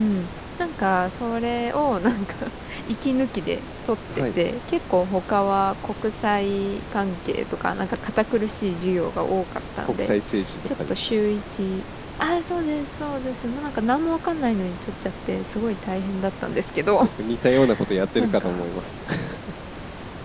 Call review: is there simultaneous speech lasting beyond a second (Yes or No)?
No